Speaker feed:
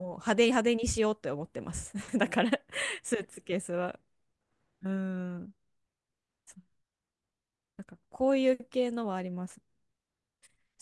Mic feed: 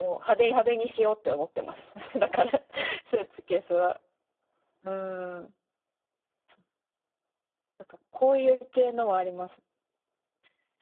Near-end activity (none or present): none